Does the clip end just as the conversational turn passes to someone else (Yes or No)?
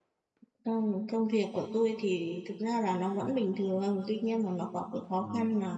No